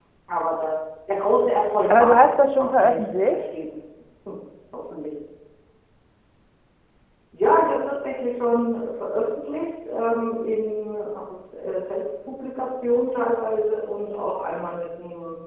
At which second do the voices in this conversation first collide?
1.9 s

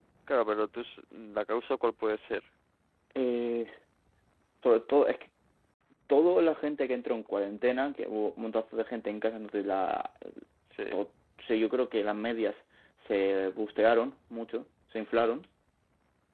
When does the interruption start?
none

